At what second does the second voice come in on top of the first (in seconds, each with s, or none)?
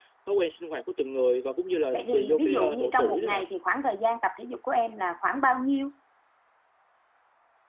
1.9 s